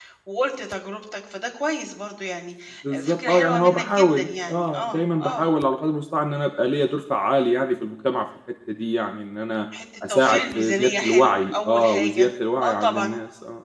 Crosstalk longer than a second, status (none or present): present